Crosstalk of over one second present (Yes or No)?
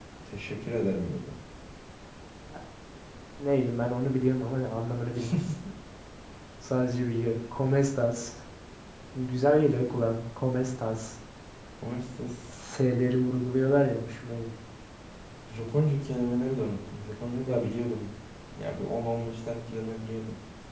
No